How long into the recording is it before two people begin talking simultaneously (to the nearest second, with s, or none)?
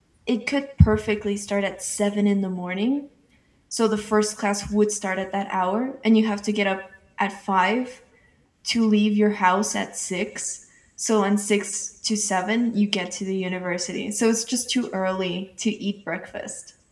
none